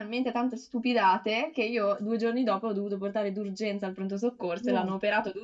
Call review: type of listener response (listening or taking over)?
listening